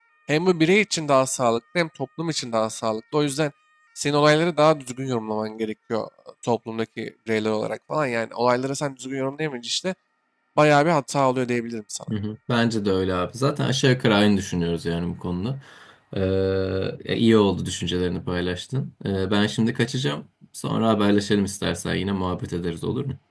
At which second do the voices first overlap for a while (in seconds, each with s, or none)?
none